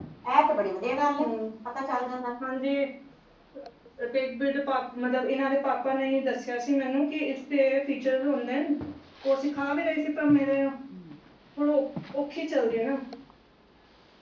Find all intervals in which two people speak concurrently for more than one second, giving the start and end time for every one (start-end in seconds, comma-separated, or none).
none